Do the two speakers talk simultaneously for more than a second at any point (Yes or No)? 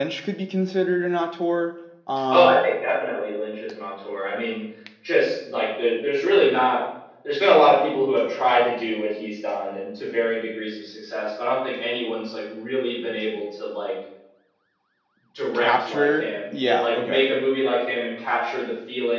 Yes